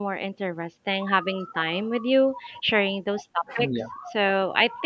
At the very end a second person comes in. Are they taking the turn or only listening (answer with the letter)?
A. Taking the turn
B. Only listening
B